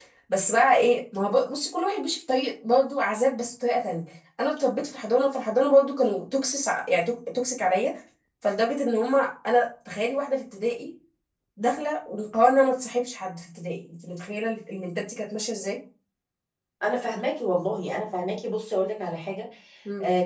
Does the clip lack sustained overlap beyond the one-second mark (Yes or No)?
Yes